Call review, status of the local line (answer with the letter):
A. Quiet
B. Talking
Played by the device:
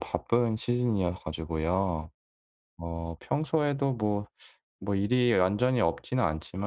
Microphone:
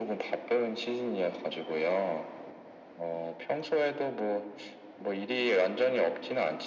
A